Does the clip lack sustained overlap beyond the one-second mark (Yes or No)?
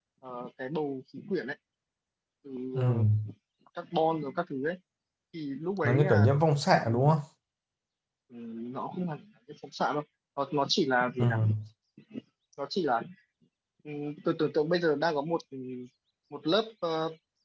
Yes